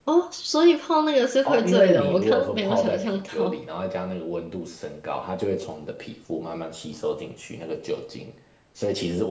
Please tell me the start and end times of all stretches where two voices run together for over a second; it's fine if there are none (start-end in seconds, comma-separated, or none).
1.4-3.5